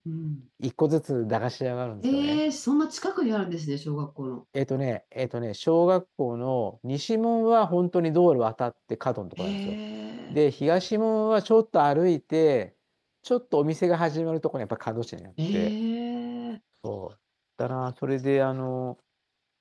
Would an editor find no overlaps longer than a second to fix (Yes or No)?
Yes